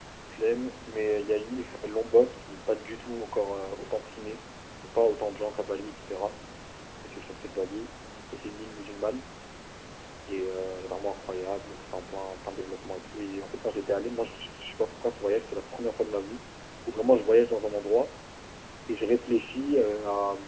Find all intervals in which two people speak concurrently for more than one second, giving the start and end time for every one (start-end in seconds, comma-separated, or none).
none